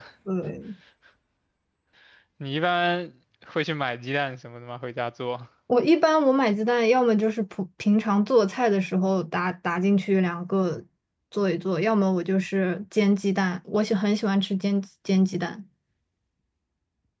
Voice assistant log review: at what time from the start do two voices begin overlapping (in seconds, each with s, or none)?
none